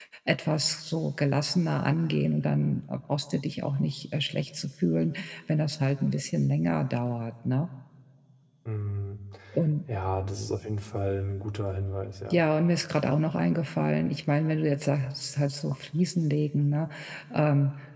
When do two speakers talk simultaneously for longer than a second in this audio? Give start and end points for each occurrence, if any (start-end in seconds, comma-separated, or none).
none